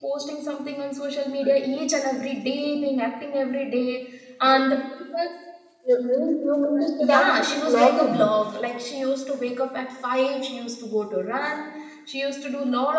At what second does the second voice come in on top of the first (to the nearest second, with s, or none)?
7 s